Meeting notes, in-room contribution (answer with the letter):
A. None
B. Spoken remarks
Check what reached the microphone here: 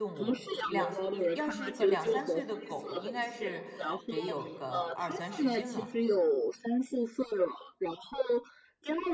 B